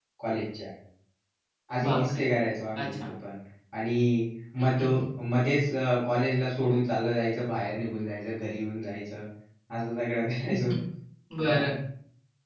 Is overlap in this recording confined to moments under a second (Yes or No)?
Yes